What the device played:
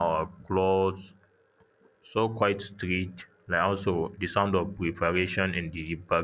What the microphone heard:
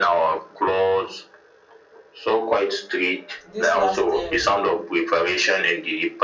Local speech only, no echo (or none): This last um